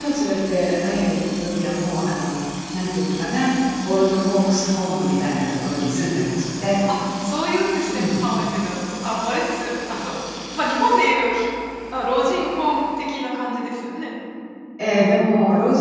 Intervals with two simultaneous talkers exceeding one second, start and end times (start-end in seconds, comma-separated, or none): none